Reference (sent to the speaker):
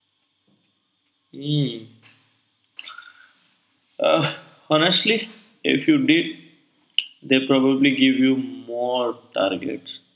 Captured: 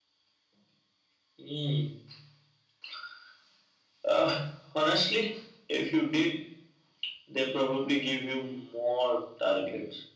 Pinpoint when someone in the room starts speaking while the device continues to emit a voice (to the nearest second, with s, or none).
none